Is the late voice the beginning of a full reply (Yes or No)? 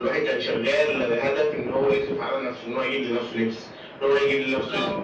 No